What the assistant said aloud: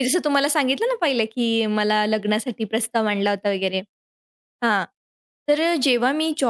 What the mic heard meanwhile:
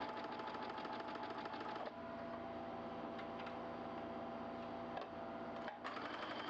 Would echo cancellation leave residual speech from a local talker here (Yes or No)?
No